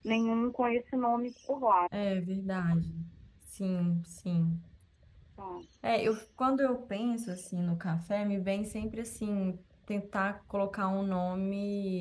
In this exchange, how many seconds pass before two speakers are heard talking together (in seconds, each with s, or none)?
none